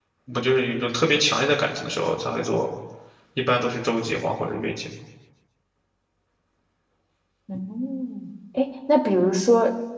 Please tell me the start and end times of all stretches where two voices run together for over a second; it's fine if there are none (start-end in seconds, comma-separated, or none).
none